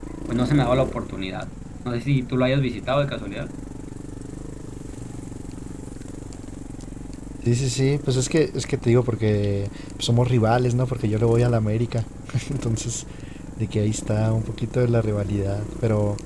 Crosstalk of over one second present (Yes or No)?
No